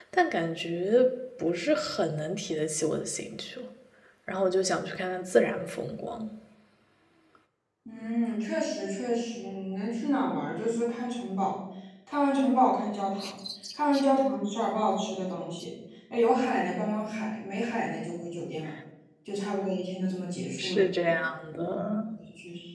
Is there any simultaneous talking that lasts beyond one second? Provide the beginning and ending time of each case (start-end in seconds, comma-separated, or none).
none